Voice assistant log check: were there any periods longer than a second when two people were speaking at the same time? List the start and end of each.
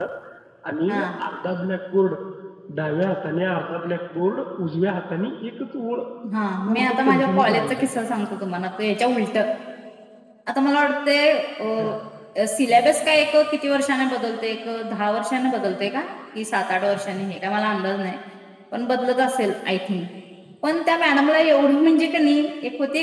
6.7-7.9

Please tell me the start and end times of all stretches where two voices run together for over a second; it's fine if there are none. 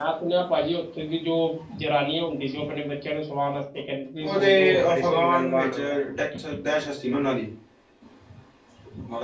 4.2-5.8

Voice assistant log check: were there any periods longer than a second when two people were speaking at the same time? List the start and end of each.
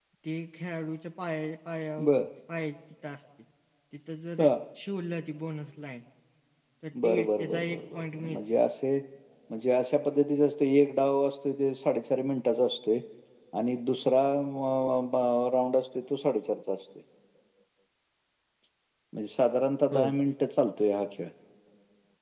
7.0-8.4

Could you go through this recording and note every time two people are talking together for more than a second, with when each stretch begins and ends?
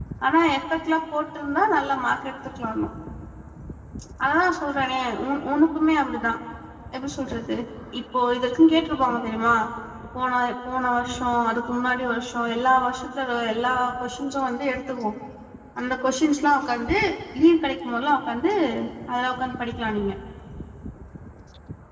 none

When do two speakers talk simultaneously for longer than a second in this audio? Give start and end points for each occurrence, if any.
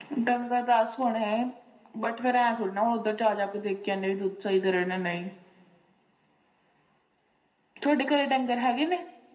none

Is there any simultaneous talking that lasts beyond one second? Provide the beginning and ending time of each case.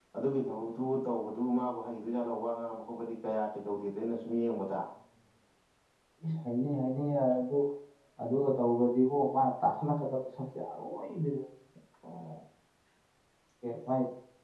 none

